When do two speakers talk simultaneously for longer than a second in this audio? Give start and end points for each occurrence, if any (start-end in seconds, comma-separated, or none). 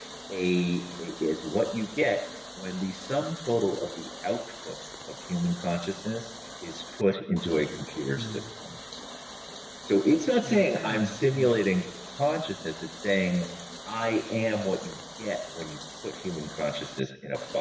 10.4-11.6